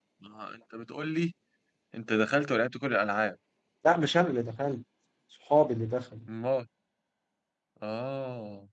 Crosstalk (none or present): none